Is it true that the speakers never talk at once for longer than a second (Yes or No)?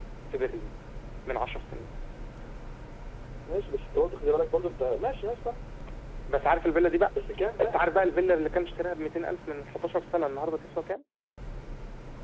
Yes